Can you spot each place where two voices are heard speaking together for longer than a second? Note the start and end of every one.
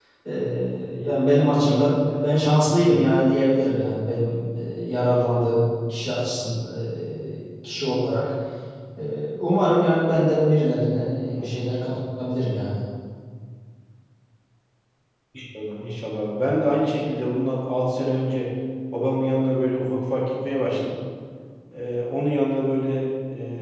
none

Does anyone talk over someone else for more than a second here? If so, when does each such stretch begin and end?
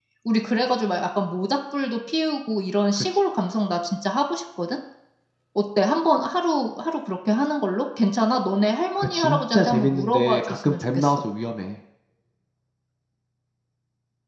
9.0-11.2

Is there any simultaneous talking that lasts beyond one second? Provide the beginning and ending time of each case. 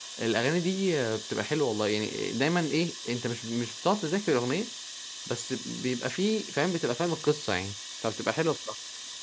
none

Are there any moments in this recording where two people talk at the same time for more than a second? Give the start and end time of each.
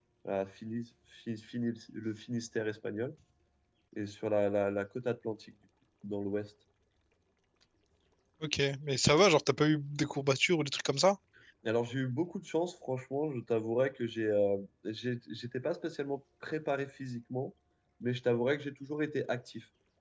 none

